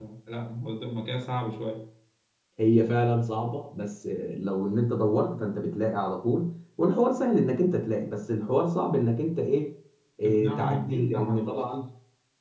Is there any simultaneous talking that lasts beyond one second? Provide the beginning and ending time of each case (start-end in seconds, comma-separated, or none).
10.2-11.6